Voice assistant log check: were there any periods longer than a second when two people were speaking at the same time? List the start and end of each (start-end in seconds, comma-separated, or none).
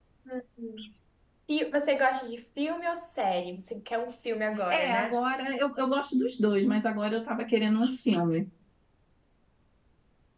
none